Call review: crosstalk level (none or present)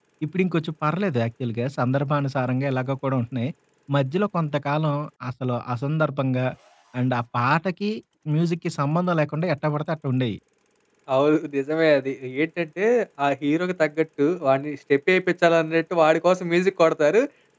none